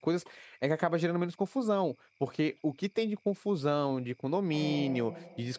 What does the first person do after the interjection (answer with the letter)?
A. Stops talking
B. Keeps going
B